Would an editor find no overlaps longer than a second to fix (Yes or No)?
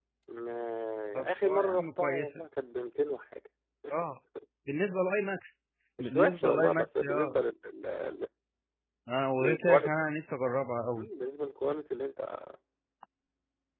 No